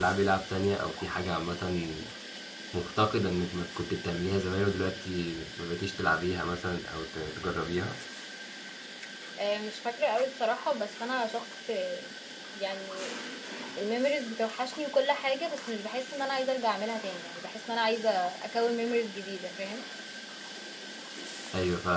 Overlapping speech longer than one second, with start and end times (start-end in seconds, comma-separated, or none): none